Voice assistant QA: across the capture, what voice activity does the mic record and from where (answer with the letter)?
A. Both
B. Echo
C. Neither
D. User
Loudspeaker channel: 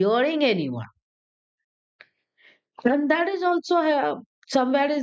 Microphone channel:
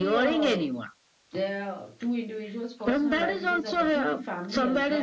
A